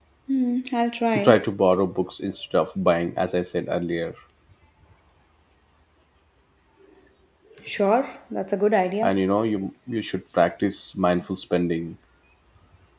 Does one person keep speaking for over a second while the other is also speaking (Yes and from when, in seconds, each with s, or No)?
No